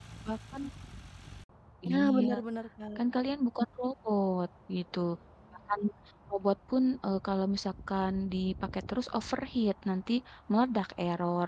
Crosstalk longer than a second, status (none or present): none